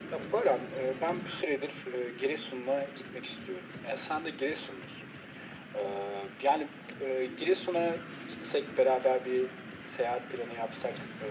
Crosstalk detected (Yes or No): No